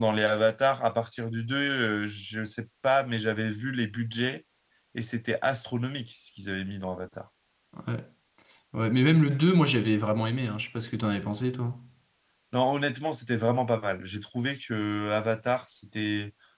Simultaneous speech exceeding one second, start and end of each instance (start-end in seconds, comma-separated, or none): none